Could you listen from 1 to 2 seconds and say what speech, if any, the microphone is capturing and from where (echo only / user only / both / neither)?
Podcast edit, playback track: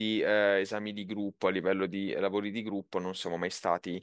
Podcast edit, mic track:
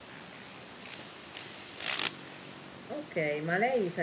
neither